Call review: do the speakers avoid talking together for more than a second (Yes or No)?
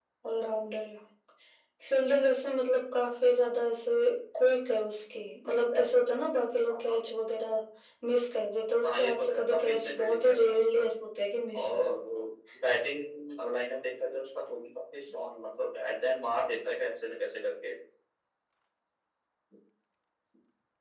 No